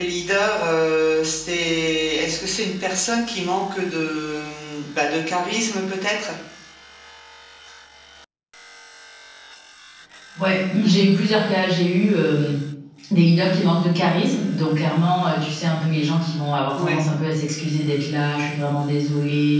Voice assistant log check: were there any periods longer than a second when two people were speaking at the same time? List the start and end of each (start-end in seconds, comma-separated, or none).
none